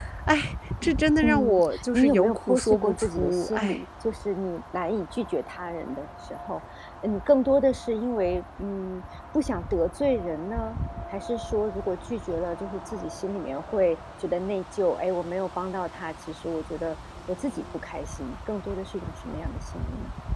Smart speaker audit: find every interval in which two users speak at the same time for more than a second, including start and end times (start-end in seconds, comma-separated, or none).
0.8-3.8